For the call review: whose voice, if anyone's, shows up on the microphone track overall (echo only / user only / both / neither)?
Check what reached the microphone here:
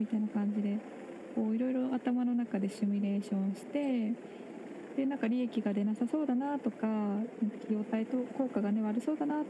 echo only